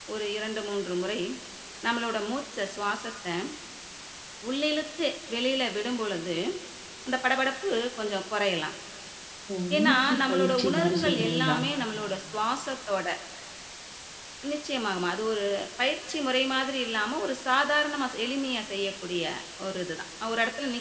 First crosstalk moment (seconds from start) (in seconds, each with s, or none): 9.8 s